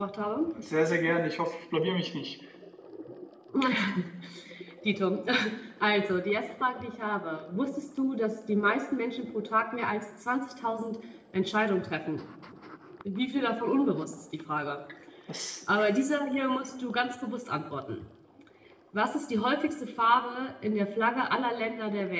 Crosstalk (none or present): none